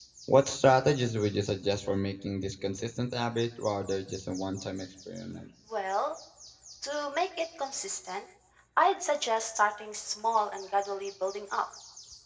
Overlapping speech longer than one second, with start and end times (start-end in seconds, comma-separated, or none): none